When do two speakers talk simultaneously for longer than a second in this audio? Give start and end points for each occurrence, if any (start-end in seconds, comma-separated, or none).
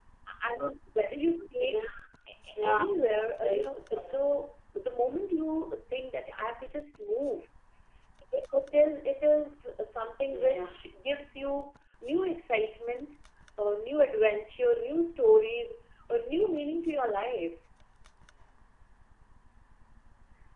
2.6-4.1